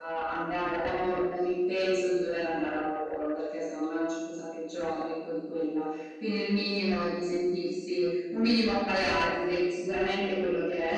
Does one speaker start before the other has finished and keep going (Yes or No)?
No